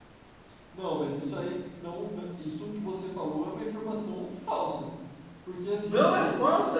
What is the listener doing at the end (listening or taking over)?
taking over